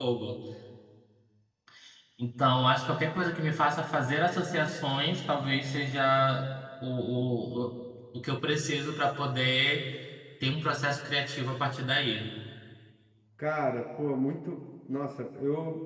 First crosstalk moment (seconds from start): none

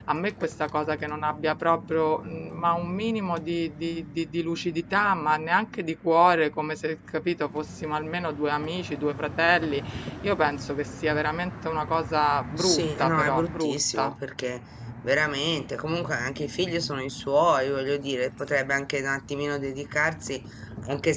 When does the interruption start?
12.6 s

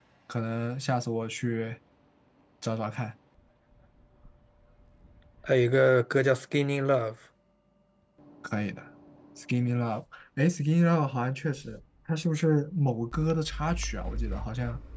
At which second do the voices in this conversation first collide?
none

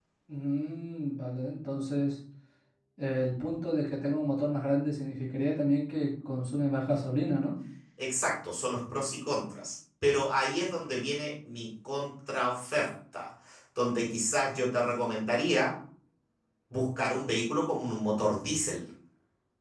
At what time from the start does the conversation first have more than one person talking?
none

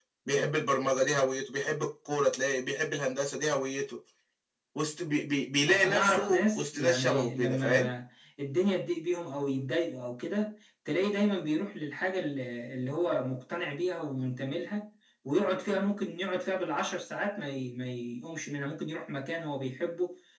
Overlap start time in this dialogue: 5.7 s

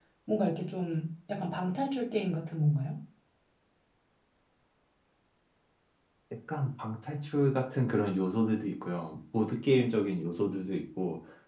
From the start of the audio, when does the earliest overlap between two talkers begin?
none

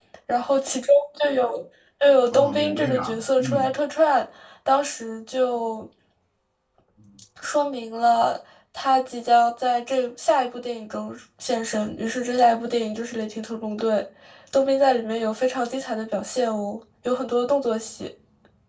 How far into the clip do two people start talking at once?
2.3 s

